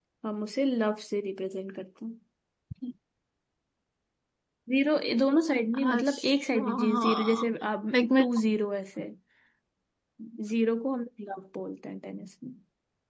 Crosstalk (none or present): present